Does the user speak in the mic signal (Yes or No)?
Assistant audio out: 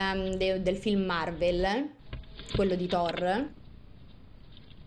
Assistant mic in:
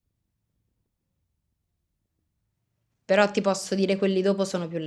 Yes